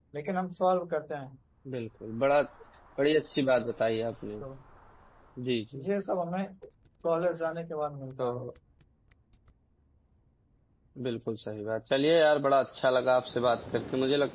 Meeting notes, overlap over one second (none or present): none